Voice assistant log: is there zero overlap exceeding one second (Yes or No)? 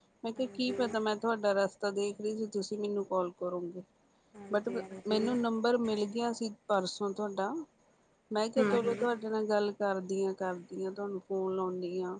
Yes